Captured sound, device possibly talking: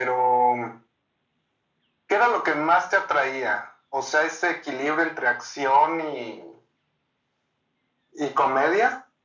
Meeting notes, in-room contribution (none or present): none